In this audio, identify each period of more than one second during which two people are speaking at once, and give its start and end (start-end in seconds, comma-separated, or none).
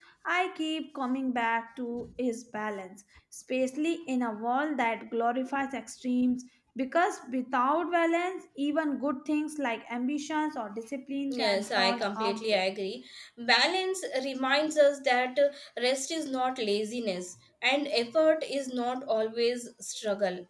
11.3-12.6